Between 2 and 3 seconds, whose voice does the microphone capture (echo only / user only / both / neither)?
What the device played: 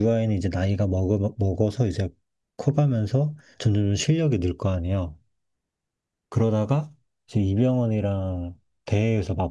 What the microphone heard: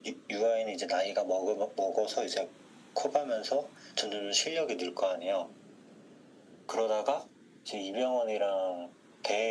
echo only